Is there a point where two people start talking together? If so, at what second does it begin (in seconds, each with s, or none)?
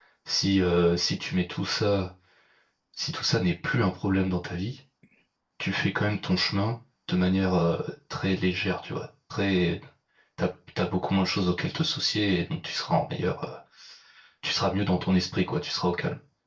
none